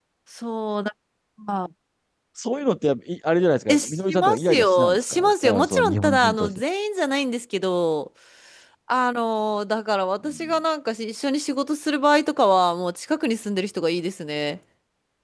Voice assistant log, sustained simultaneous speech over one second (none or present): present